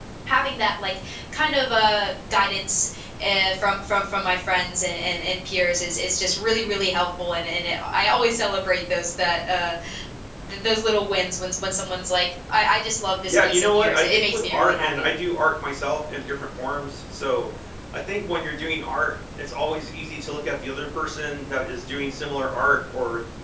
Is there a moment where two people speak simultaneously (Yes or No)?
Yes